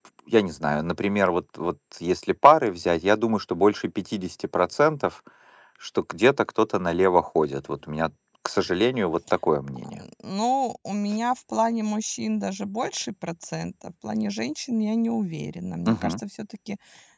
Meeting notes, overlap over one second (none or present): none